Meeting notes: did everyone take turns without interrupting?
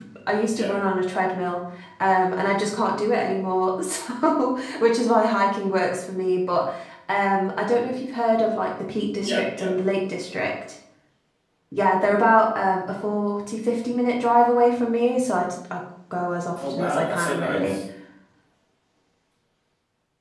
No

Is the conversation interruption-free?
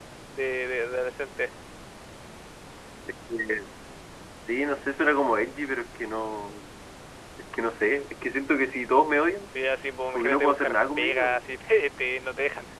No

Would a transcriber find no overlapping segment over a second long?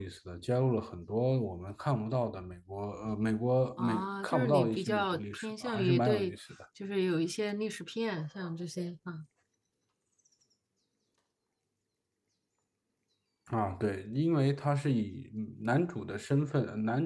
No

